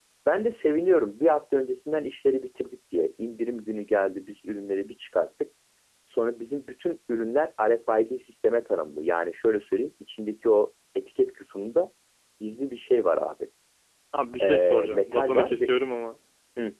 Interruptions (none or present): present